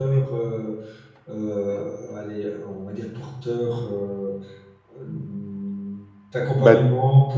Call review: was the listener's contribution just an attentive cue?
Yes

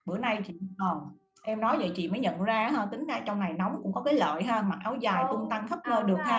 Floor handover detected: Yes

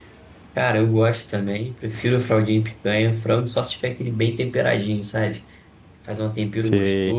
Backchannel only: Yes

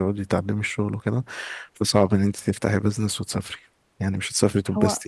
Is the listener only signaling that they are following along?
No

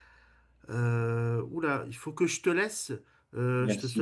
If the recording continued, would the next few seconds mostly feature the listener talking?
No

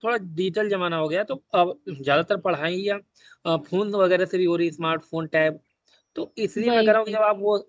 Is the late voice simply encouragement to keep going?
Yes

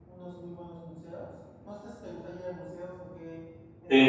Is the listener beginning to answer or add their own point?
Yes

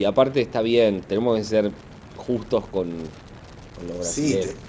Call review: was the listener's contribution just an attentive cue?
No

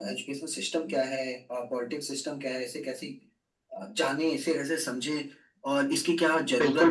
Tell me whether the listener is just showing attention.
No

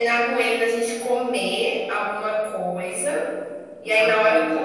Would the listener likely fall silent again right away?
Yes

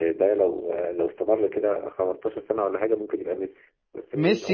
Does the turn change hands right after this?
Yes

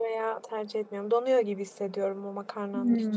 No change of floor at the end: No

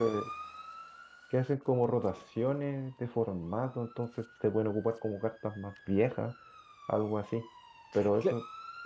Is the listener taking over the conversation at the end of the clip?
No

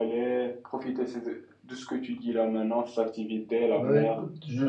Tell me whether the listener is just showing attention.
No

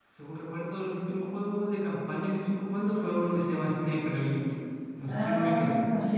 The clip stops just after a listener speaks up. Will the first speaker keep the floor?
No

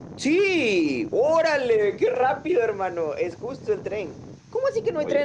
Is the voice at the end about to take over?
No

